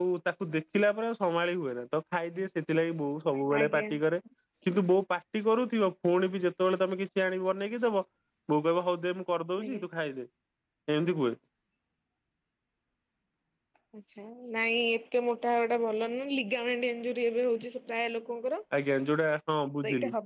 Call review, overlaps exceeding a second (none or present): none